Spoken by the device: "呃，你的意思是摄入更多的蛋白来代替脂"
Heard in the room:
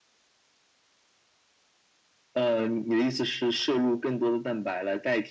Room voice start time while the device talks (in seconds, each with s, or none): none